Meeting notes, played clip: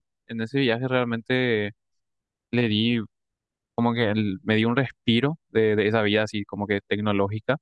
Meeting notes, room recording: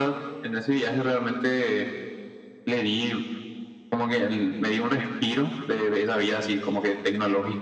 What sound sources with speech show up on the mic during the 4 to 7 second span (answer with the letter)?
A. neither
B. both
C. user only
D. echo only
D